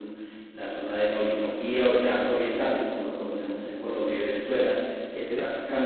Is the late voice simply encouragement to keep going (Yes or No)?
Yes